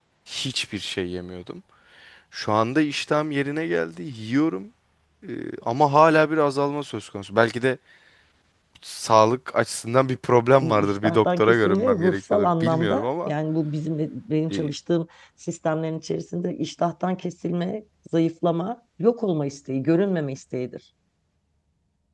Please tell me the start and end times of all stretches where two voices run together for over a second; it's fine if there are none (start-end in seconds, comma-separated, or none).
10.6-13.3